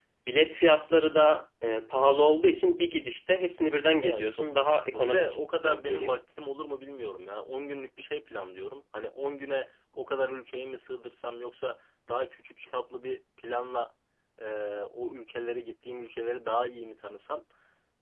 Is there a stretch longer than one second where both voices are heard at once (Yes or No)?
Yes